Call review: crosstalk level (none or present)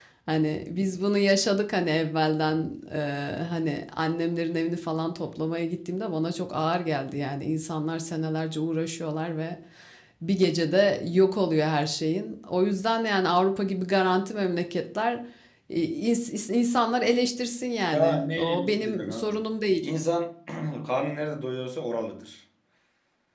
present